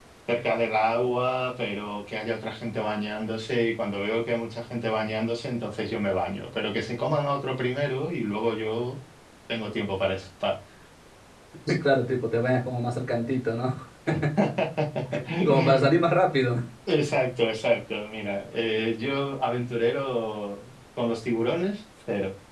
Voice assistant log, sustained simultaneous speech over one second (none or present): none